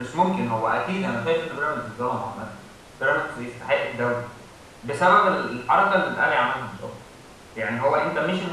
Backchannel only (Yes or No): Yes